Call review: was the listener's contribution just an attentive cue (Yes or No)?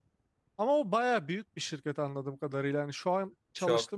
Yes